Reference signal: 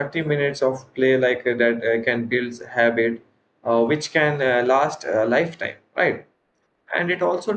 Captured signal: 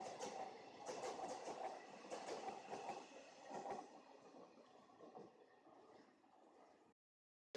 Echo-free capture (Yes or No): Yes